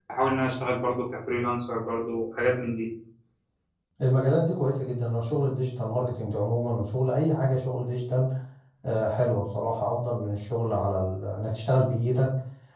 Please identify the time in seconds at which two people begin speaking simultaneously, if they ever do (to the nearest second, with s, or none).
none